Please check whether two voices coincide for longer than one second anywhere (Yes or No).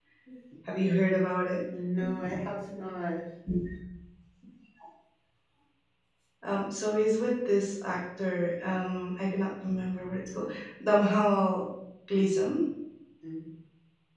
No